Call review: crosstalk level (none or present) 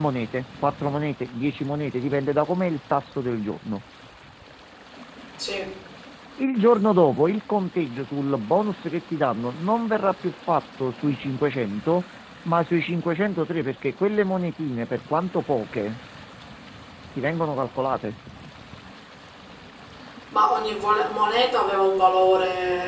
none